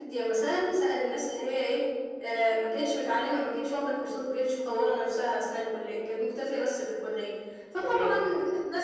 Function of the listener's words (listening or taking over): listening